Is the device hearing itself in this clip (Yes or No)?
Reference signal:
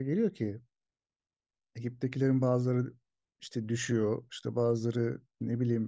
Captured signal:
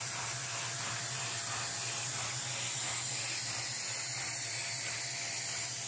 No